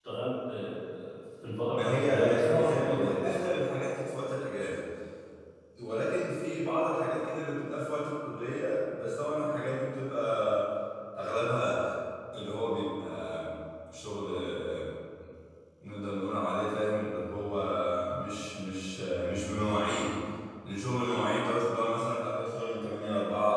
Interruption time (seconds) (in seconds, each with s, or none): 1.7 s